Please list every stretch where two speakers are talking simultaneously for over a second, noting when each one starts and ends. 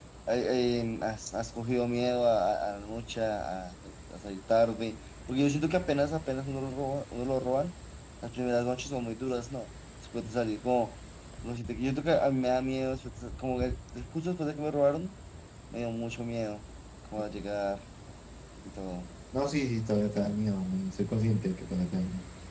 none

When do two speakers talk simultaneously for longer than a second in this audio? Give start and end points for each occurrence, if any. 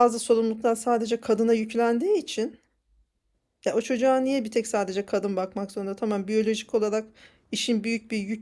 none

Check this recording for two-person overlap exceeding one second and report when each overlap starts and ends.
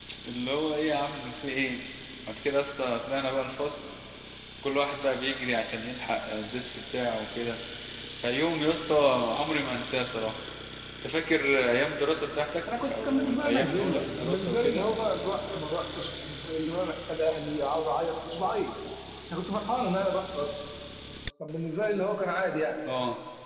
12.8-14.8

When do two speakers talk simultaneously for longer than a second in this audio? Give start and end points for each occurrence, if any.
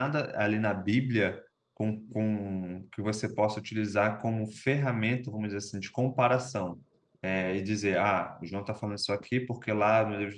none

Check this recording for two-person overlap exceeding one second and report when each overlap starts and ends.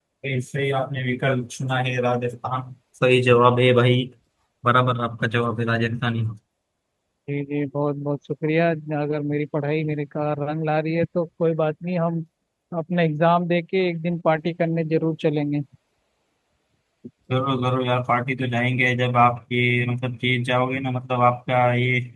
none

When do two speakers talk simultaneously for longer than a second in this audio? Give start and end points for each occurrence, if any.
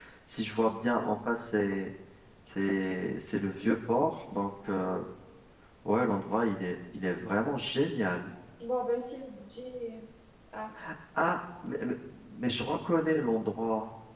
none

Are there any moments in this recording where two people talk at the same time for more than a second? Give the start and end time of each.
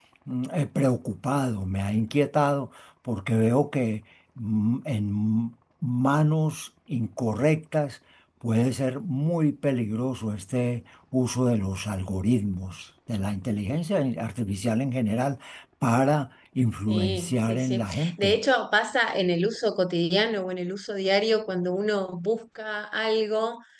16.9-18.4

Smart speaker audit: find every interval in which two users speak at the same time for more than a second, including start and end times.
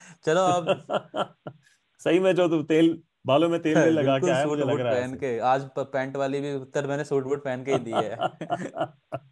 3.8-5.0

